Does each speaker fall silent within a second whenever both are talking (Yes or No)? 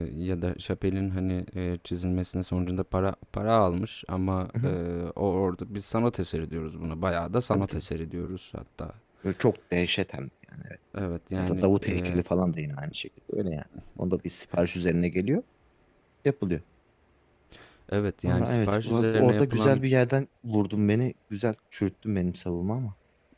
No